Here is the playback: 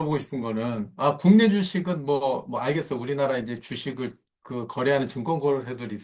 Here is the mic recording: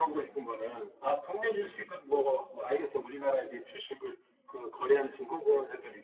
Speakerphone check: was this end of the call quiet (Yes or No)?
Yes